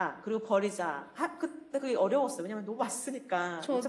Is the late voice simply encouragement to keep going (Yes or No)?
No